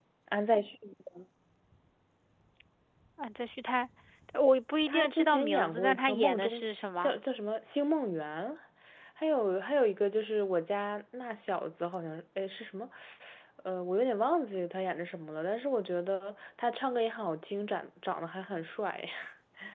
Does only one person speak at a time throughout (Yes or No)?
No